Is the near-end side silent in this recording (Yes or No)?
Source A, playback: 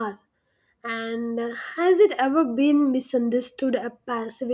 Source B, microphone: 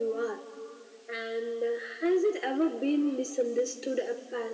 Yes